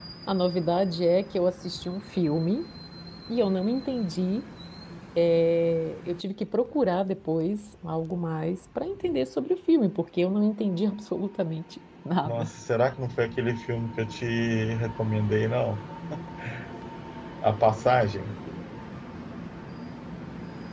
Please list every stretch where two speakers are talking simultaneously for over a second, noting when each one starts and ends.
none

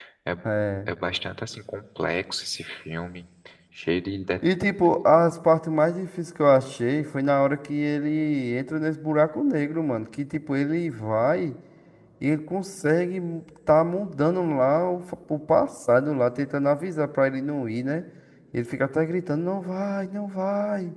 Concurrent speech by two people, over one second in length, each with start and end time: none

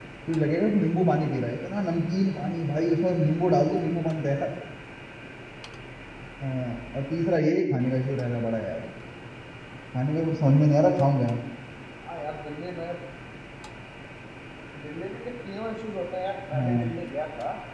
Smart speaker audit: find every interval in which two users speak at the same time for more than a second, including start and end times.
none

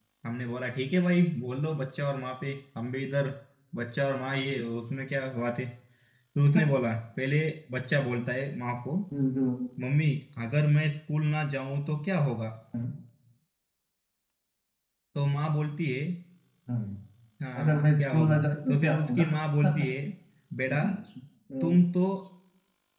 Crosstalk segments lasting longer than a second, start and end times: 17.6-19.3

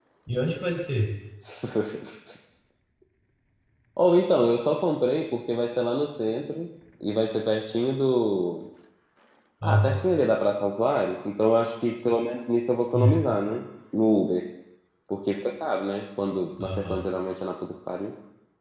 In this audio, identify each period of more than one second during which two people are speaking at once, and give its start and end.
none

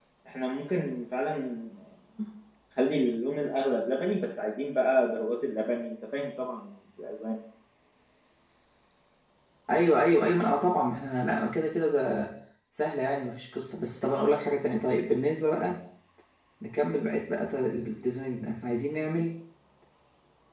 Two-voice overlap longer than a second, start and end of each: none

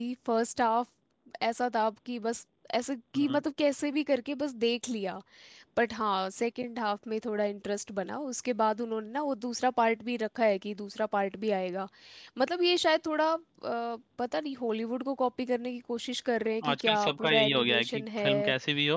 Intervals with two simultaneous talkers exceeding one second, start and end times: 16.7-18.3

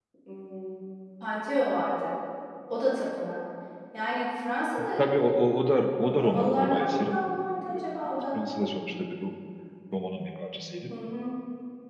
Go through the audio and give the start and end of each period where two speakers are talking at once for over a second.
6.0-7.2

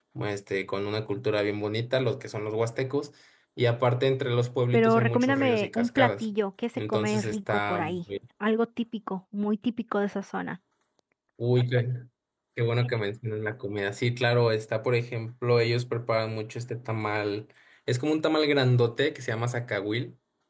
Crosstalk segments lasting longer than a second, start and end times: 4.7-6.2, 6.8-8.0

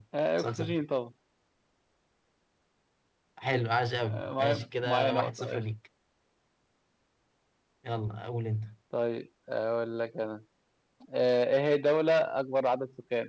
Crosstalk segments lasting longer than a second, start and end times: 4.0-5.6

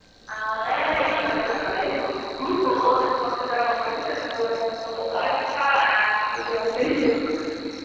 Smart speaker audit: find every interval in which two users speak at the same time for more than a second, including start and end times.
0.6-1.8

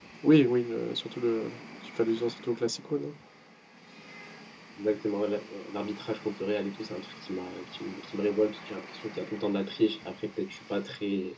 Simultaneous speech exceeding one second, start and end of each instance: none

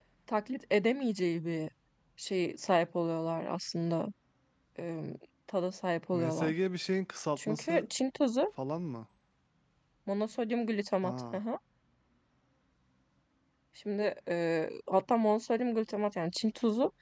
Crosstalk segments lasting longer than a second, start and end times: none

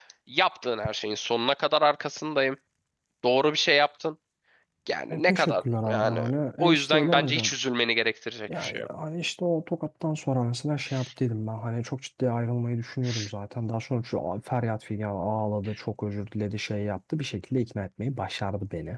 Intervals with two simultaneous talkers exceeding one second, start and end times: 5.1-7.5

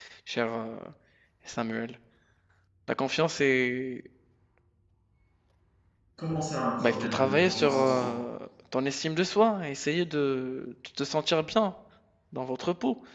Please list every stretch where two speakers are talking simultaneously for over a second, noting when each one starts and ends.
6.8-8.1

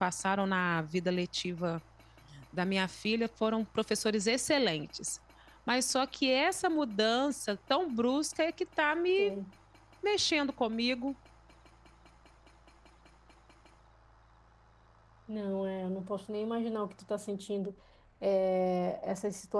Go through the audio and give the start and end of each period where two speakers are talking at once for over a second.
none

